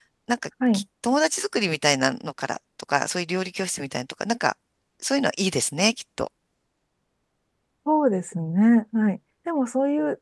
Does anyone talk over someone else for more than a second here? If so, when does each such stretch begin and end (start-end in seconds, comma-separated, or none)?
none